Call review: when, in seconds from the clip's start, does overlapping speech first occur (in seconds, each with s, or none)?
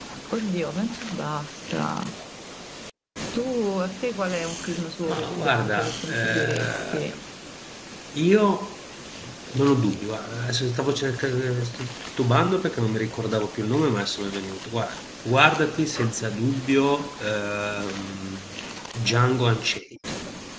5.1 s